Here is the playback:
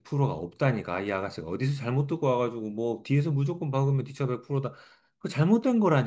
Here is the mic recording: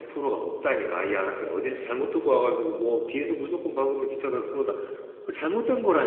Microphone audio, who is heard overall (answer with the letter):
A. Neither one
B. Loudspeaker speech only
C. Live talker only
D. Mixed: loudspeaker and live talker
B